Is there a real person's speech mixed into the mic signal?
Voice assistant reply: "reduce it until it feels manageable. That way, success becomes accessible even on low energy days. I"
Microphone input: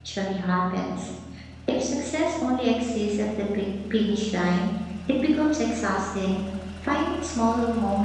Yes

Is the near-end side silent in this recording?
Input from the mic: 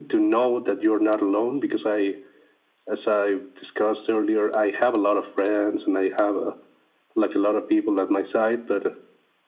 Yes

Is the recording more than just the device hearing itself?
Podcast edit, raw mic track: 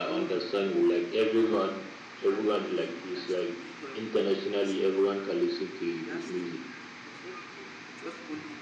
No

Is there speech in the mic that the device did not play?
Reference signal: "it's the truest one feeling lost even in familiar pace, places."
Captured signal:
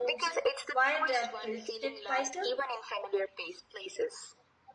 Yes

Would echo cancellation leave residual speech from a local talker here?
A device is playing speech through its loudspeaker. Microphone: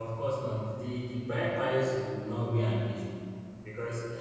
Yes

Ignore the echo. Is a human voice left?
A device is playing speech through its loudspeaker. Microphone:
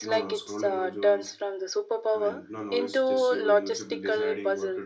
Yes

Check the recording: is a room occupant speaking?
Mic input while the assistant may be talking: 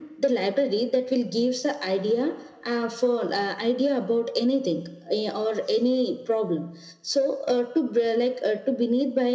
No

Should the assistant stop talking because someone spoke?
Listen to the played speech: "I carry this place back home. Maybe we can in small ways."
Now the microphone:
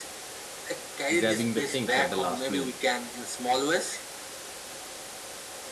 Yes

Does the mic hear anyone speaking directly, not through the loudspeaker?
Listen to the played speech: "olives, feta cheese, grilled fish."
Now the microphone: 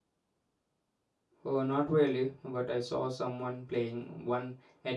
Yes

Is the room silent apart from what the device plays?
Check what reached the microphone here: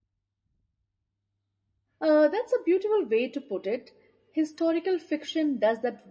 No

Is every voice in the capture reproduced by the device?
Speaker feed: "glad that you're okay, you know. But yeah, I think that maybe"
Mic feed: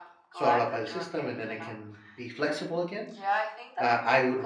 No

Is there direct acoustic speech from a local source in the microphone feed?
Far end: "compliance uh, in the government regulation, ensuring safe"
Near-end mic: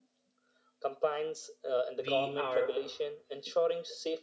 Yes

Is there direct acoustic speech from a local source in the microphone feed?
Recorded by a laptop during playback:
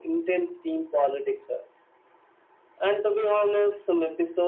No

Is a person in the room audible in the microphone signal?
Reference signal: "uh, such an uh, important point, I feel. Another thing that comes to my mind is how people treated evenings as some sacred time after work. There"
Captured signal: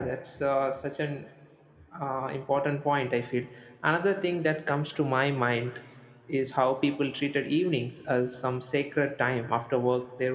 No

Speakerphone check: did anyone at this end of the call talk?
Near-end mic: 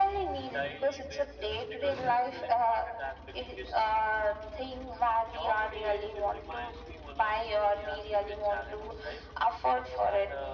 No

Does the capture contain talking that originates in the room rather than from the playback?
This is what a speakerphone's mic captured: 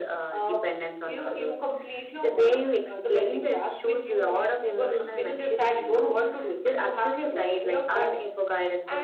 No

